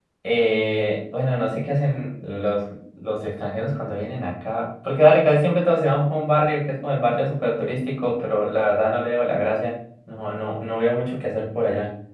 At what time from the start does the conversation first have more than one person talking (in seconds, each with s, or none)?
none